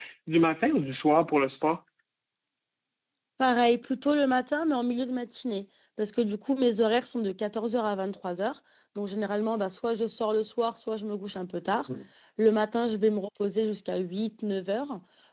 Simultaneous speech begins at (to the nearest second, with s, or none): none